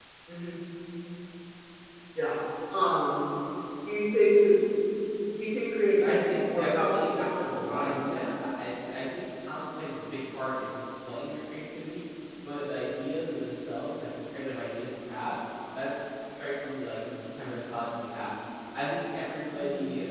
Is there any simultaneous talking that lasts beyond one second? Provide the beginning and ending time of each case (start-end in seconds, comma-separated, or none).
6.0-8.3